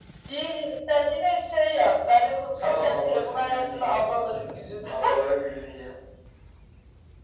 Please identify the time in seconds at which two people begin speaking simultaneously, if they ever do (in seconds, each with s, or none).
2.6 s